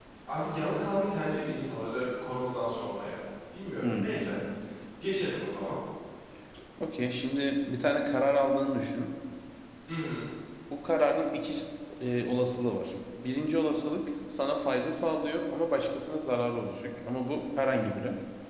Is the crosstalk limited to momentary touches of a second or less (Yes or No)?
Yes